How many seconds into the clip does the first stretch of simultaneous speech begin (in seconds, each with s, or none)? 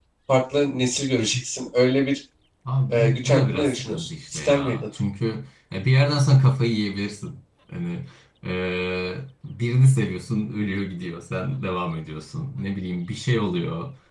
2.9 s